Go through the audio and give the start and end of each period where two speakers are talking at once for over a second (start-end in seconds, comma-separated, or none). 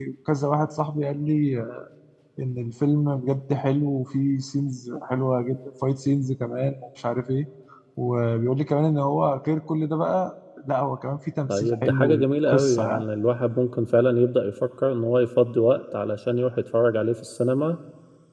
11.5-13.0